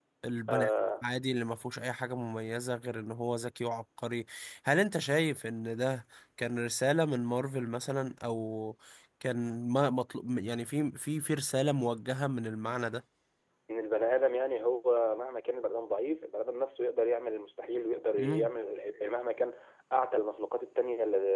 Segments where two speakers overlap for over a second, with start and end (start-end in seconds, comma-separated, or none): none